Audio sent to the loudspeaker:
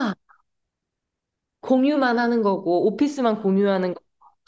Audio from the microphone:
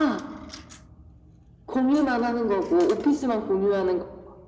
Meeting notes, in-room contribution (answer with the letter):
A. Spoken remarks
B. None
B